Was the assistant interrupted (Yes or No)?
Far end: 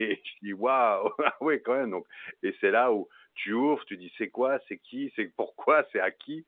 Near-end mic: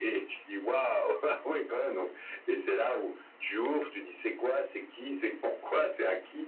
No